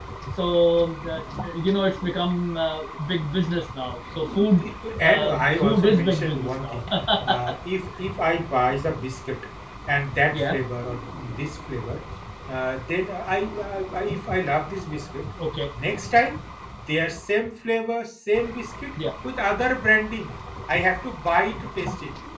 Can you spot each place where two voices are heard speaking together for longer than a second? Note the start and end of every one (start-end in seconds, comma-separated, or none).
5.0-6.8